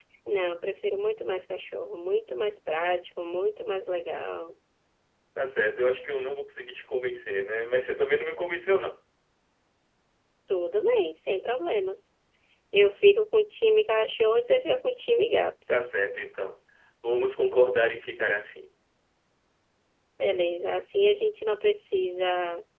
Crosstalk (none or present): none